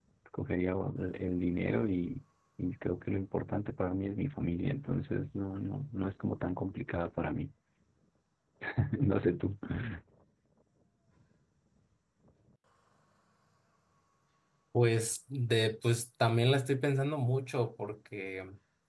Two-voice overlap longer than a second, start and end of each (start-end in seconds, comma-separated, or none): none